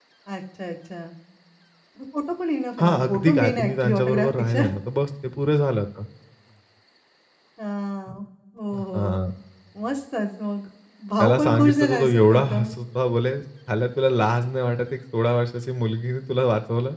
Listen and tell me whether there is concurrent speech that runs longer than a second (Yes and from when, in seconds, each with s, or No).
Yes, from 2.8 s